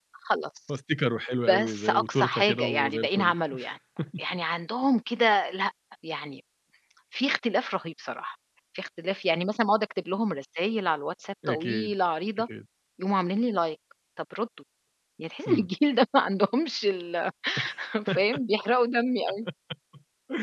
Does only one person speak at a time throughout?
No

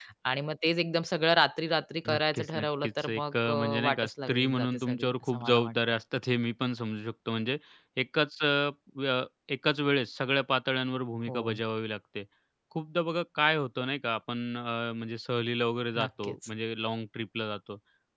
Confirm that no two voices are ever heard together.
No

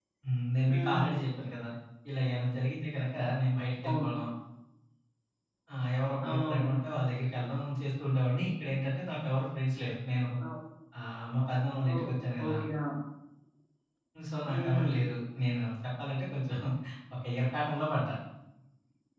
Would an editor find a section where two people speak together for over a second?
No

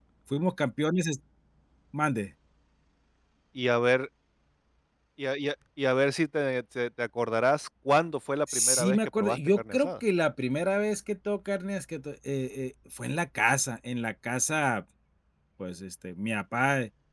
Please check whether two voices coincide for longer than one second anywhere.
Yes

